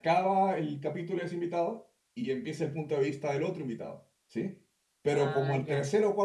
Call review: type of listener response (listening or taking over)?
listening